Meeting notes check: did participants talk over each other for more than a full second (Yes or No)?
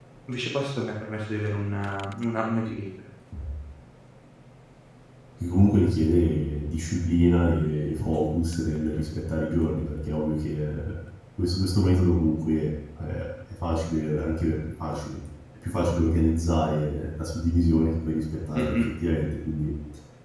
No